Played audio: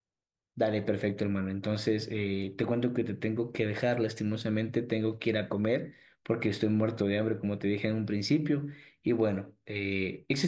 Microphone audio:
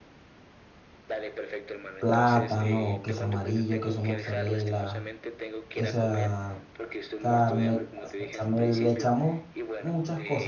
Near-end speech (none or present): present